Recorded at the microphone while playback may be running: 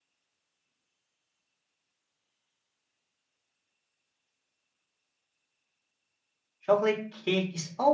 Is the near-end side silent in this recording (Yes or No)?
No